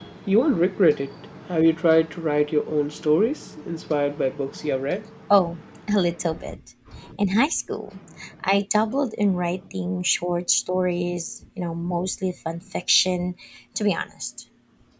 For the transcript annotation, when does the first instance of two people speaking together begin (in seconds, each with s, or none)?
none